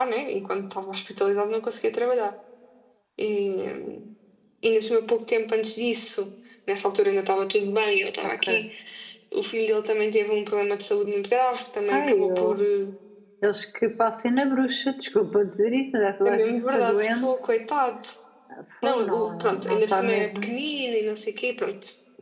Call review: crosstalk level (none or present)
present